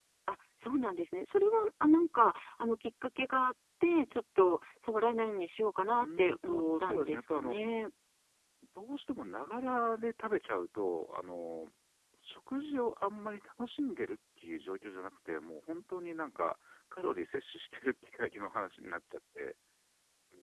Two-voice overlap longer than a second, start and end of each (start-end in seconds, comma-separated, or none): 5.9-7.6